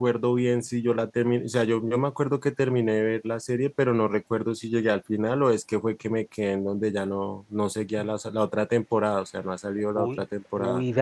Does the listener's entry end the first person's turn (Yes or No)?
Yes